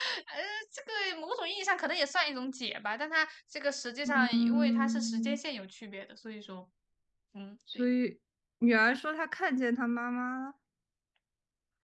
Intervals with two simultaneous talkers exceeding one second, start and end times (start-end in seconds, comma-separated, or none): 4.0-5.4